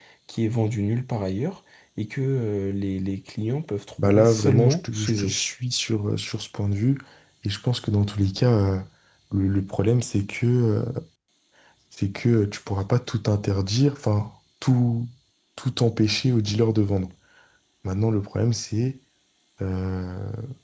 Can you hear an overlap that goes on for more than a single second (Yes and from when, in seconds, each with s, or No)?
Yes, from 4.0 s